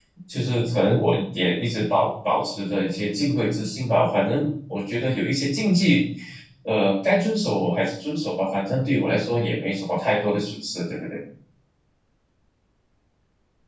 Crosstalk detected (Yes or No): No